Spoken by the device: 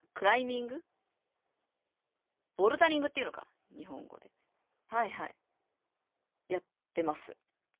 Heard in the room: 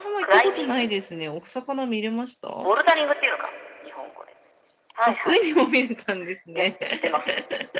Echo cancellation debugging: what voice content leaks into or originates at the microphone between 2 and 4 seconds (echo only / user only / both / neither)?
both